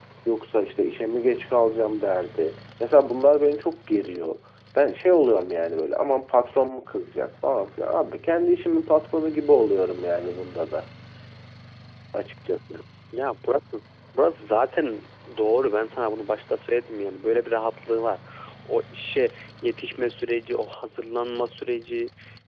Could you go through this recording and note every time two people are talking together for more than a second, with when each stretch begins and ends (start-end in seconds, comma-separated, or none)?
none